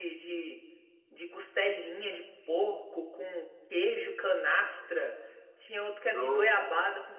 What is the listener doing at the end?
listening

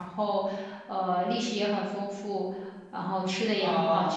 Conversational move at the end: taking over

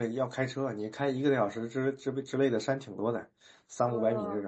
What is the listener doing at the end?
taking over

